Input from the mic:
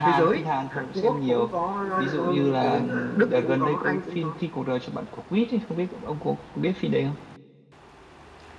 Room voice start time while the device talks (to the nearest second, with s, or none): 2 s